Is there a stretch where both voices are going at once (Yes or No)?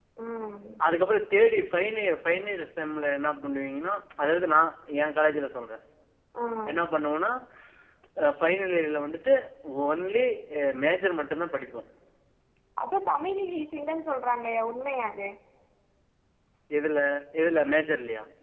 No